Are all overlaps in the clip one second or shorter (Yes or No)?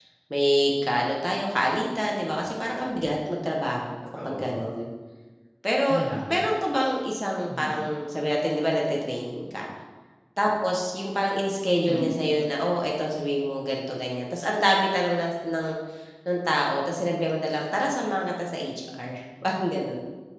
Yes